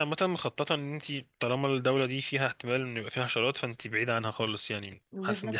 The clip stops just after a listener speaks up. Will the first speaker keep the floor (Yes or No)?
No